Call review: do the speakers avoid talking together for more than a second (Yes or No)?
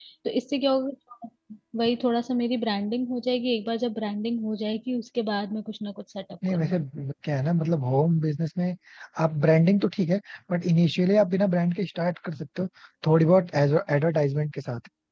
Yes